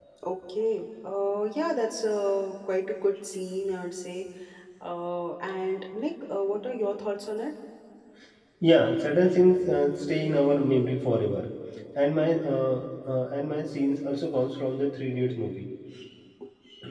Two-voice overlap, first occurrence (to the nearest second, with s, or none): none